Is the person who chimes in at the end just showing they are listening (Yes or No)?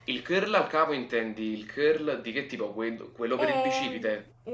No